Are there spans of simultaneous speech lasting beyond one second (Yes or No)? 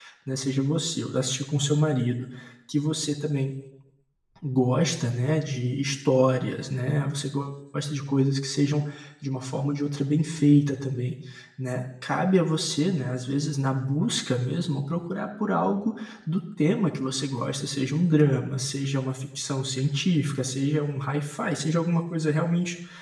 No